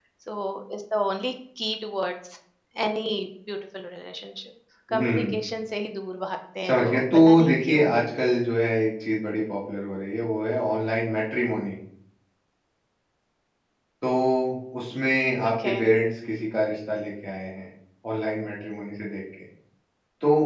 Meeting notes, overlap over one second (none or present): present